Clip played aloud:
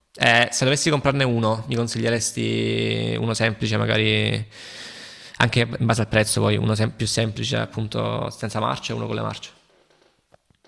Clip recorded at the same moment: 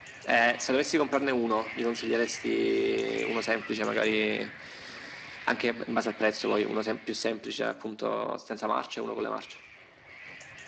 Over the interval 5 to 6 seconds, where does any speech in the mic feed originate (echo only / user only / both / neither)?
echo only